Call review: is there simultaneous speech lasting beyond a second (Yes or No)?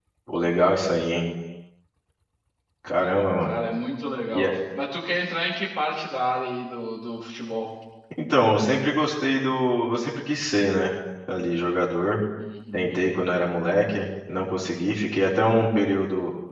No